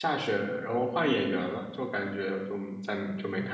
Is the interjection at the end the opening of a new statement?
Yes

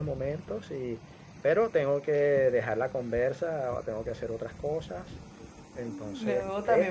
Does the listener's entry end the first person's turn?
Yes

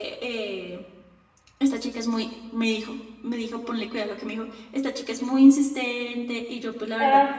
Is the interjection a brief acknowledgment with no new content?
Yes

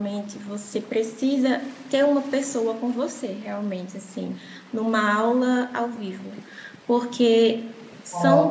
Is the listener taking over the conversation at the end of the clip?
No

